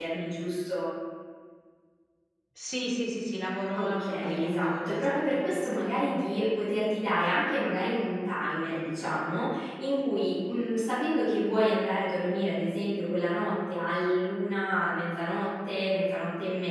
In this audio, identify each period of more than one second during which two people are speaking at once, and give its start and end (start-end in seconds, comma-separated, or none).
3.7-5.4